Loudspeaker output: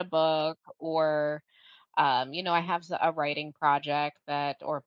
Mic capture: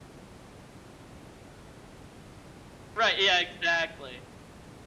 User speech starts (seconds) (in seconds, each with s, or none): 3.0 s